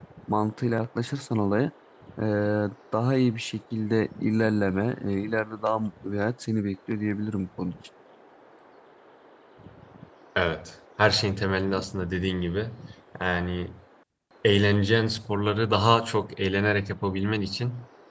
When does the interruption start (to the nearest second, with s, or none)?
none